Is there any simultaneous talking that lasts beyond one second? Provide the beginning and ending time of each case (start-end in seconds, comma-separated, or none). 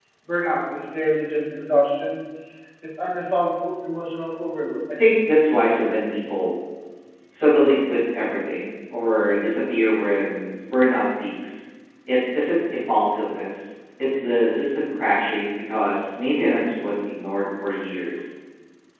none